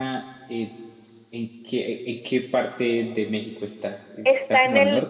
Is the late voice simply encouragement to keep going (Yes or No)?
No